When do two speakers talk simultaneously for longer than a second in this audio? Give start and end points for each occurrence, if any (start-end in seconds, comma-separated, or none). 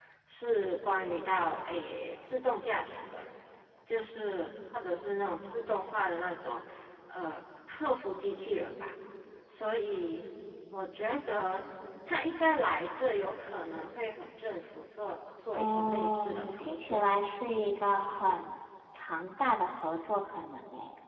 15.6-17.0